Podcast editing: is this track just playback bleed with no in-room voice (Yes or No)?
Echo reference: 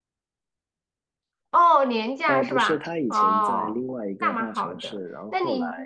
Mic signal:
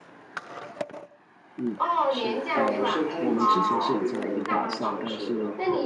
No